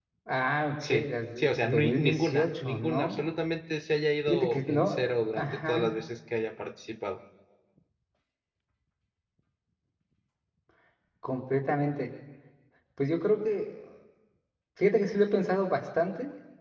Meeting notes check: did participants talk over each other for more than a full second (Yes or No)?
Yes